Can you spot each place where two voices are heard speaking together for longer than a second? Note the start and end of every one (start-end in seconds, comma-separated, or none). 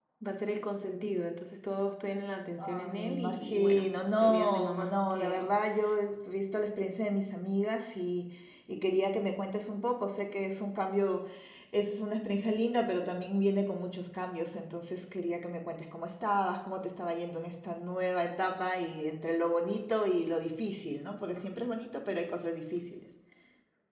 2.6-5.5